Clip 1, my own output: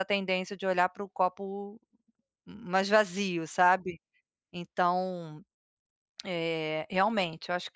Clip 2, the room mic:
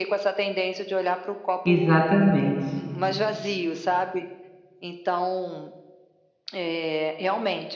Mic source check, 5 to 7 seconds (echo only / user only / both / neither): echo only